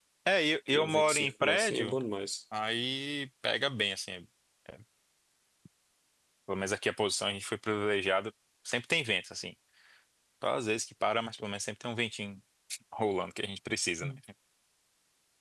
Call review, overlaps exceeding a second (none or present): present